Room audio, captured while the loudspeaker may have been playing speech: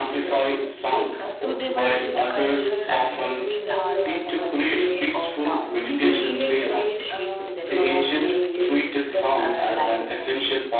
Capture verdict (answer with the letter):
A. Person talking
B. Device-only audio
A